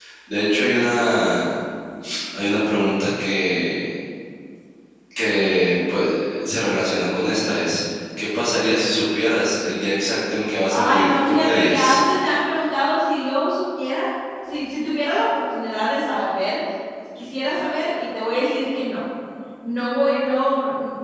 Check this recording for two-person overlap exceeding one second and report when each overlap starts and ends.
10.7-12.0

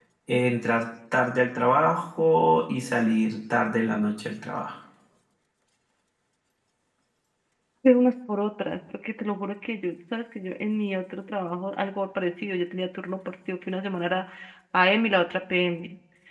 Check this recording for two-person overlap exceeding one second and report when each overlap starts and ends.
none

